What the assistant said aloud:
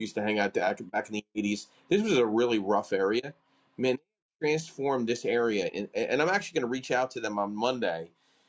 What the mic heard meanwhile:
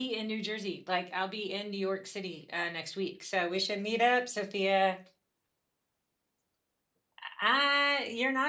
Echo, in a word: none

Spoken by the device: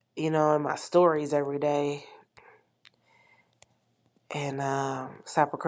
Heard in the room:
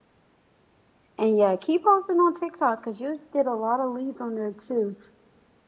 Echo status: none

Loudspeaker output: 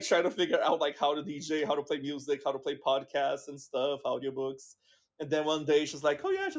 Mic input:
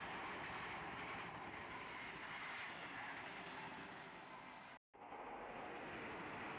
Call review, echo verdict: none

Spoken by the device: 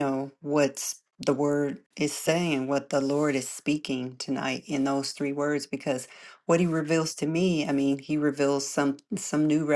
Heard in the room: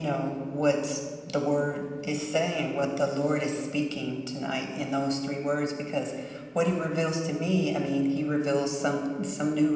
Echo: present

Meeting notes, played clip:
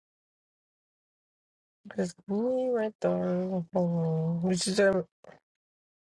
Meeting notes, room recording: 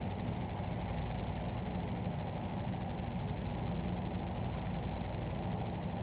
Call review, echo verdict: none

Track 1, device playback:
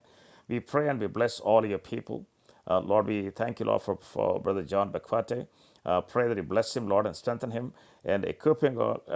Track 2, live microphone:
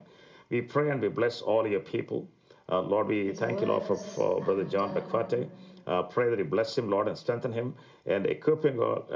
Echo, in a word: present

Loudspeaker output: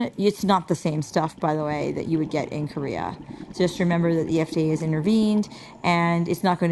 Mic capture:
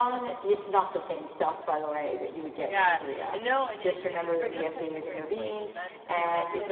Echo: present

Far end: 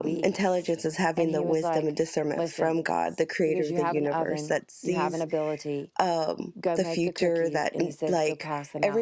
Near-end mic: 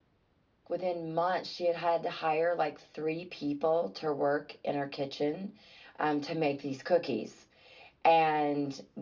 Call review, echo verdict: none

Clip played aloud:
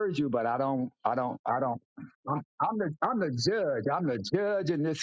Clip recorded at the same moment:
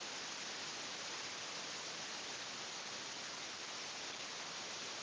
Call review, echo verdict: none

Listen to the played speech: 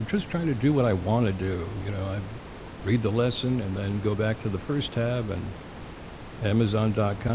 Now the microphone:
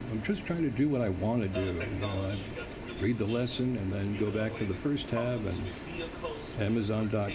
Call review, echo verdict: present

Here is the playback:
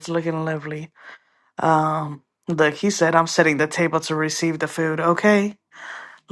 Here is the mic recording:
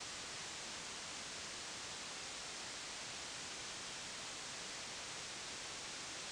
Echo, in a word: none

